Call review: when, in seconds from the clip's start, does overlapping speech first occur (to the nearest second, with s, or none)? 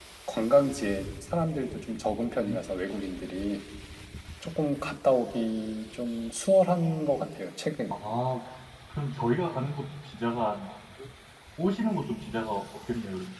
none